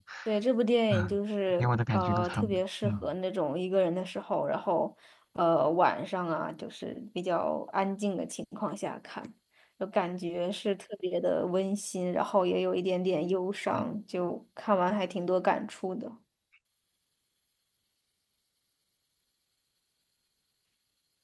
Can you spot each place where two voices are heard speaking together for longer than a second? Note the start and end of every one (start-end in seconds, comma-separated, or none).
1.6-3.1